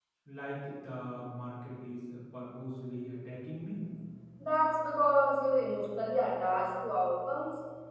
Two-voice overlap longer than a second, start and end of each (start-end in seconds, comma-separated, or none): none